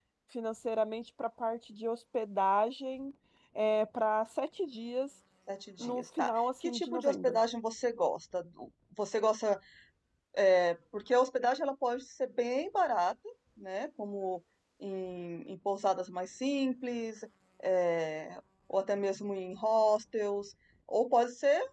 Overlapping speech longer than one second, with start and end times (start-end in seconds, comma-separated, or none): 5.8-7.4